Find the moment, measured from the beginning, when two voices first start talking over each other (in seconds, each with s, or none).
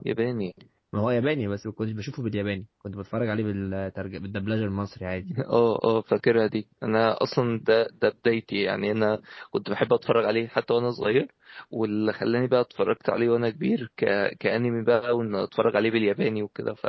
none